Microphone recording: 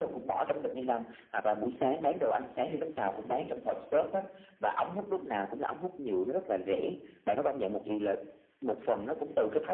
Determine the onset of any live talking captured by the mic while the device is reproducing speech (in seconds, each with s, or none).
none